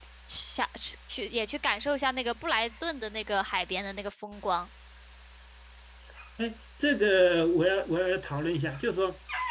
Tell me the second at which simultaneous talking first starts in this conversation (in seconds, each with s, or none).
none